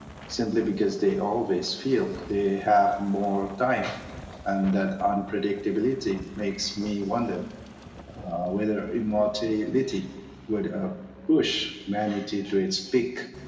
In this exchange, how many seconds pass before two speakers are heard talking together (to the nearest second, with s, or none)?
none